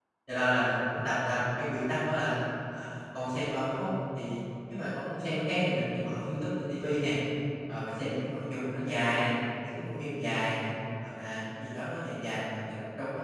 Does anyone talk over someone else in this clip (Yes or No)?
No